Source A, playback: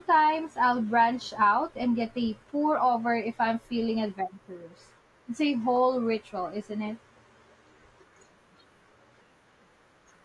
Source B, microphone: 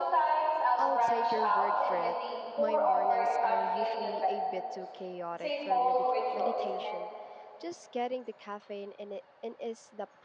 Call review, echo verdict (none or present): present